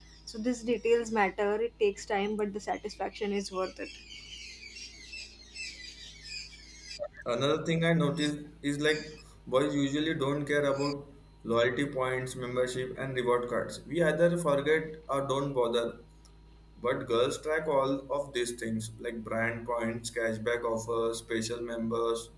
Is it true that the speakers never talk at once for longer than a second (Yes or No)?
Yes